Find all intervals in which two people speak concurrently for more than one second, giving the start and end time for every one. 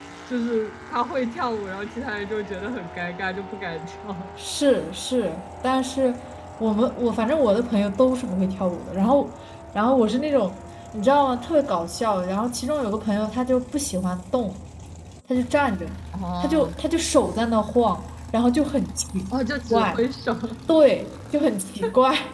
none

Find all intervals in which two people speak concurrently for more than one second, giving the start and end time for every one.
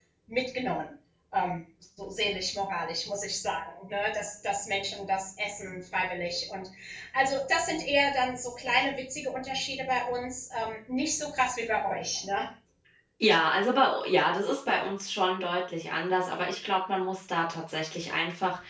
none

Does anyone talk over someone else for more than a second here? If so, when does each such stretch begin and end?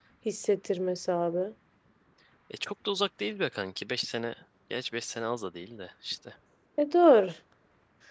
none

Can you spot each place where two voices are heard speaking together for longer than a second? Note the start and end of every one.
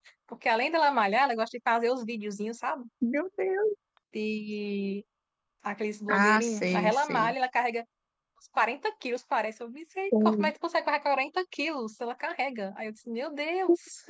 6.1-7.3

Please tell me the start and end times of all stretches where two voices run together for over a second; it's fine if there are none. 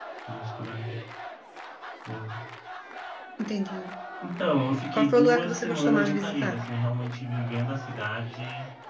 4.9-6.6

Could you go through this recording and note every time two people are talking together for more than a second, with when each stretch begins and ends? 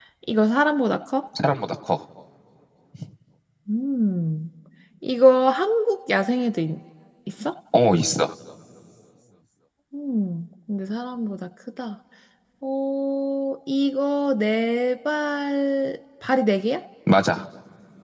none

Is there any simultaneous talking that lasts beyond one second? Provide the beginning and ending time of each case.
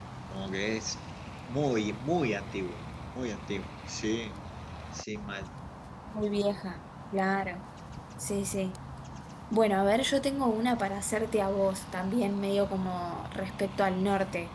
none

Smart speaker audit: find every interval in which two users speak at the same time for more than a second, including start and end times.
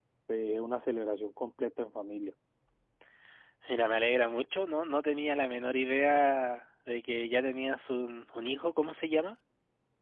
none

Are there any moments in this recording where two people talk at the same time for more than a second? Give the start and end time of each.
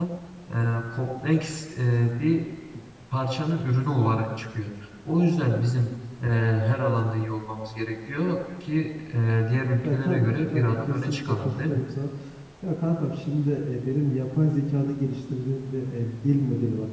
9.8-11.8

